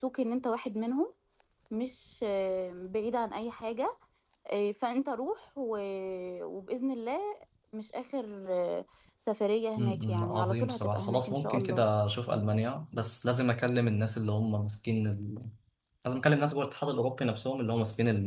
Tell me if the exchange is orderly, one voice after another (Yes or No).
No